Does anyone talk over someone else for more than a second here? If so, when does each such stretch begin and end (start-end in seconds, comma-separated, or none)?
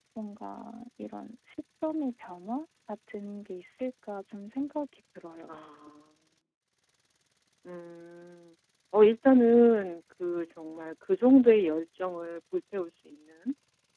none